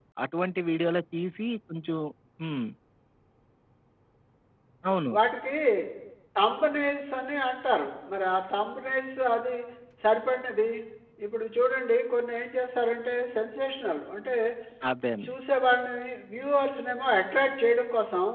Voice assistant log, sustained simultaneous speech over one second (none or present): none